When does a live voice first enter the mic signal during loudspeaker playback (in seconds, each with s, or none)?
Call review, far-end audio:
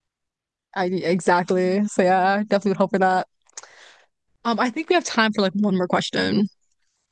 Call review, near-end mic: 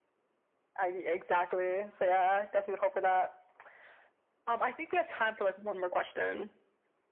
none